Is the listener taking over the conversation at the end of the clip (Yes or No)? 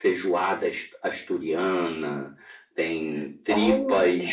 No